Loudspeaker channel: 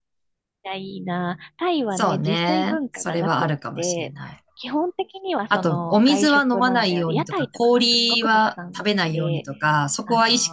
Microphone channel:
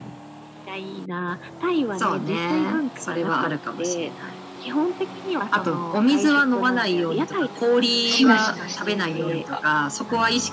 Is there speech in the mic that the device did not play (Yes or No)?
Yes